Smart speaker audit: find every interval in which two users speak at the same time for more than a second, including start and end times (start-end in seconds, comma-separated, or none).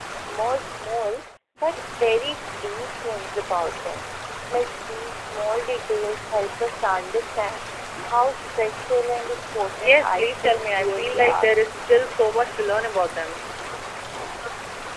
9.8-11.6